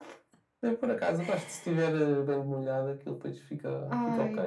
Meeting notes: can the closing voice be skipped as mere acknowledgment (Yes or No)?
No